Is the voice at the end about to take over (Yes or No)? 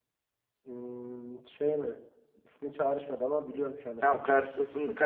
Yes